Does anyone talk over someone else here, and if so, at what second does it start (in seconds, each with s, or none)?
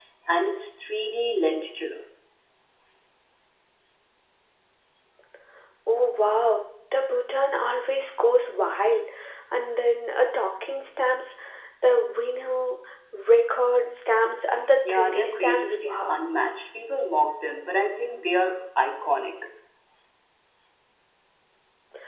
14.8 s